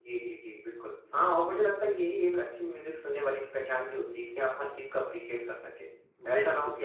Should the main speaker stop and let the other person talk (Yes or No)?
No